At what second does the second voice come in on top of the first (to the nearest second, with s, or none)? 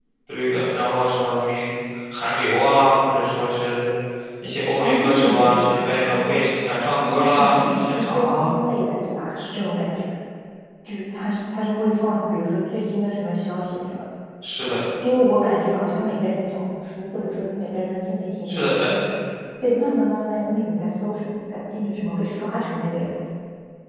5 s